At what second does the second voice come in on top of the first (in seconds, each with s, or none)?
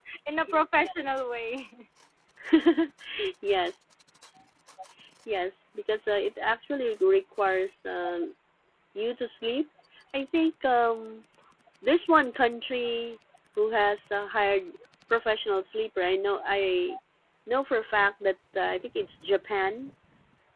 none